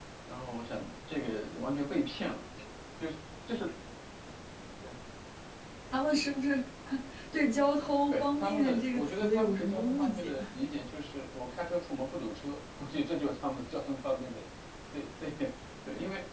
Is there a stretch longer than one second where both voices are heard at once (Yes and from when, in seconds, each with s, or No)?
Yes, from 8.1 s